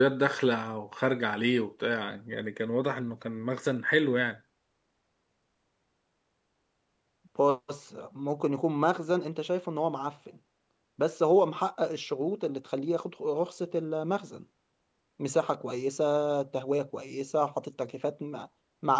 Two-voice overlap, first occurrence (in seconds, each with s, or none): none